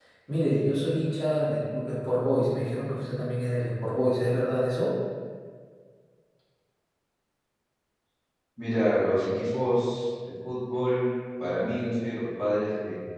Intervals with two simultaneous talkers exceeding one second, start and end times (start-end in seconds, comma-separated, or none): none